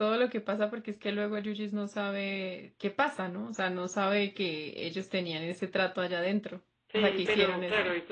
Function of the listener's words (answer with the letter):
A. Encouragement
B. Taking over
B